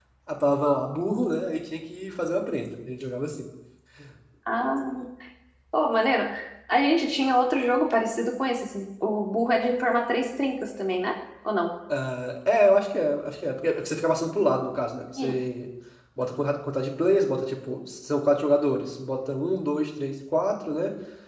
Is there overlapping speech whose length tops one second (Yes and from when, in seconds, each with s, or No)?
No